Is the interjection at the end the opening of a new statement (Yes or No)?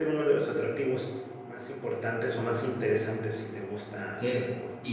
Yes